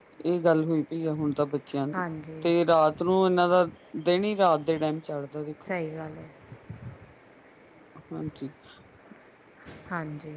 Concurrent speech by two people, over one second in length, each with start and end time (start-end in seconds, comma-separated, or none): none